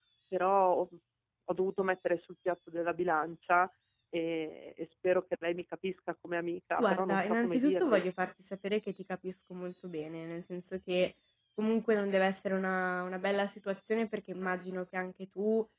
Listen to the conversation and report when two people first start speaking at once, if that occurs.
6.8 s

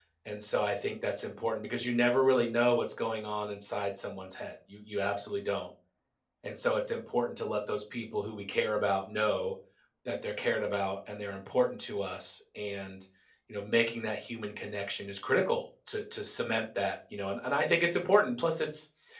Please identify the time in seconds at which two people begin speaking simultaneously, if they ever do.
none

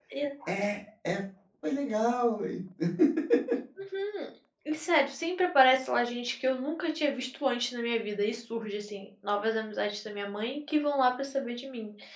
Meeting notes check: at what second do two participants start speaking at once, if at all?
none

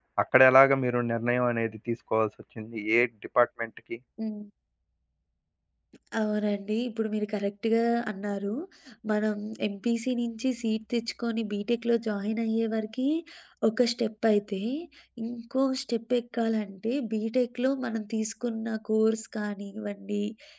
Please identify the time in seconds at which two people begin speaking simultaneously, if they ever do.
none

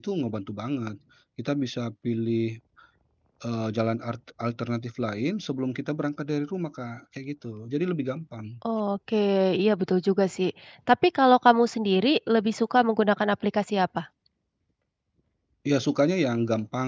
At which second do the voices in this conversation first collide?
none

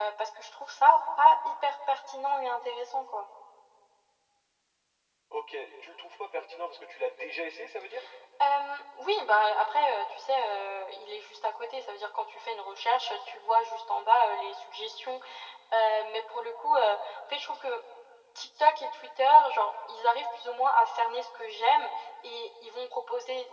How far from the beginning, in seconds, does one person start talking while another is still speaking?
none

